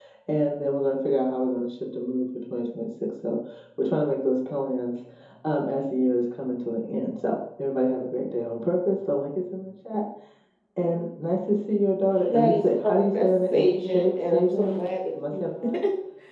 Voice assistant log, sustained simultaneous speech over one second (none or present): present